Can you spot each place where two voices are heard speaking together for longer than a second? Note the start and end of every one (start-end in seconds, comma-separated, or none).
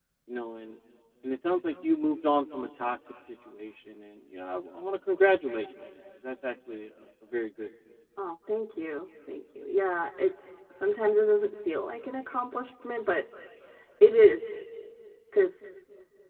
none